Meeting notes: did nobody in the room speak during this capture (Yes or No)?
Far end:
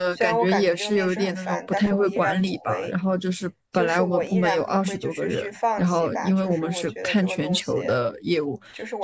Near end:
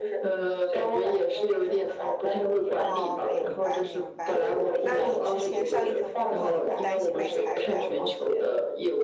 No